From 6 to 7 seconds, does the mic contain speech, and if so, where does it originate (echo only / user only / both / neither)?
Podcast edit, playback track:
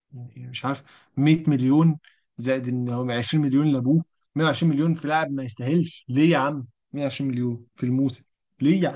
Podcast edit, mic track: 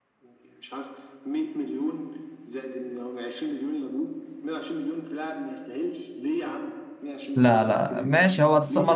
echo only